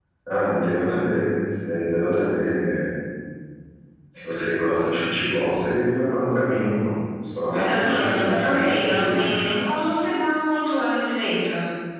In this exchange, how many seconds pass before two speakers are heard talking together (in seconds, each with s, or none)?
7.5 s